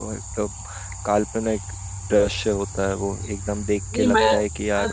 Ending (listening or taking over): taking over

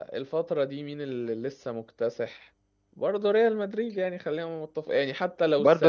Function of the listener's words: taking over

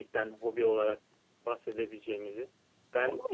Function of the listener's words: taking over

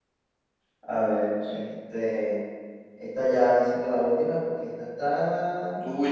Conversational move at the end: taking over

